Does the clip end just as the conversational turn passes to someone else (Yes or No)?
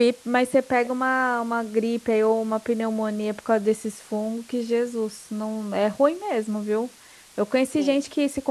No